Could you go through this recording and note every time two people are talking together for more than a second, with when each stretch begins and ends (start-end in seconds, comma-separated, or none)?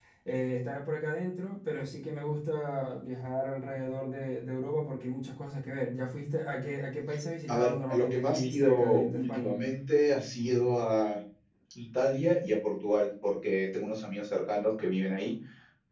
7.5-9.5